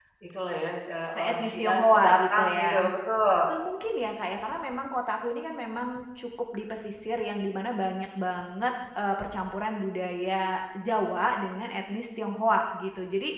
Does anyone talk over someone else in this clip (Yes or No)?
Yes